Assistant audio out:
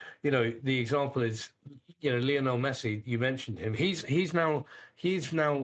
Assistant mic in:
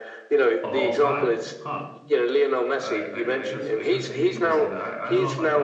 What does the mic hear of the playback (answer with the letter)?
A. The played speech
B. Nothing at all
A